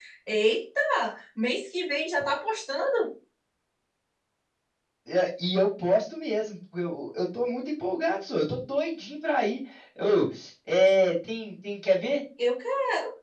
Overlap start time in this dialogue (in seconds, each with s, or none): none